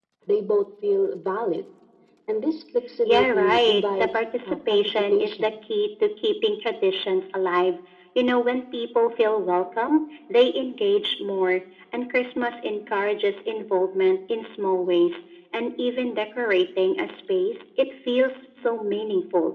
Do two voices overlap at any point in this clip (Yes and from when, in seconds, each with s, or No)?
Yes, from 3.0 s